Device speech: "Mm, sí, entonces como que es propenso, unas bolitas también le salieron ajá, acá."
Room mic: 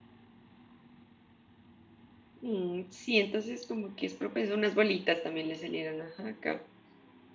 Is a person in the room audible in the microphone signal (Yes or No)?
No